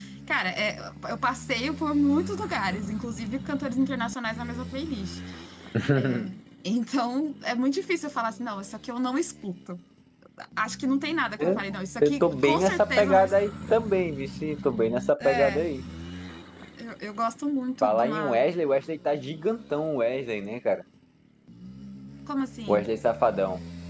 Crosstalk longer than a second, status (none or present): present